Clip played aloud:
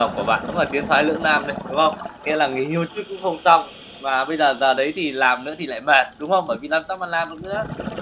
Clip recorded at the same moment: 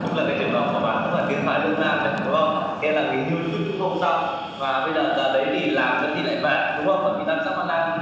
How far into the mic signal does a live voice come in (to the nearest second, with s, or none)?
none